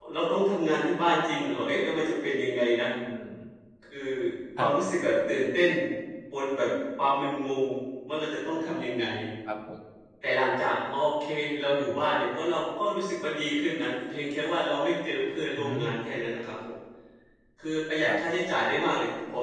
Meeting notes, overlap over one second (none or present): none